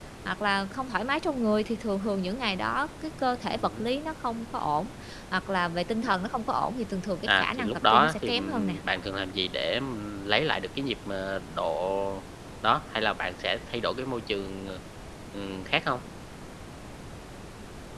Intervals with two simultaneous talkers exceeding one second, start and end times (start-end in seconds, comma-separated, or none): 7.2-8.8